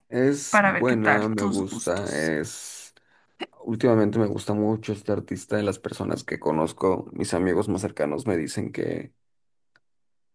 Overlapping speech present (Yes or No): Yes